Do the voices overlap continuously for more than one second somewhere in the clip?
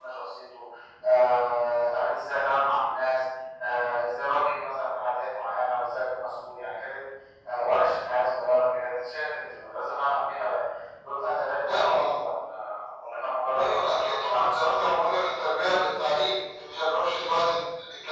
Yes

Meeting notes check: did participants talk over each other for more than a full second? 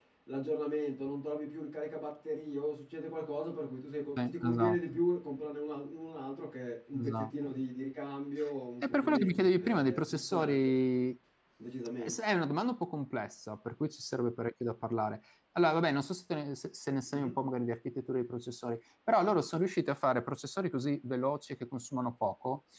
Yes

